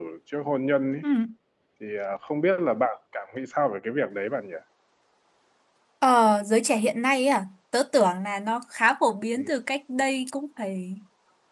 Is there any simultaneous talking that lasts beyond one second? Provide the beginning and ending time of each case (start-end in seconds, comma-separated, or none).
none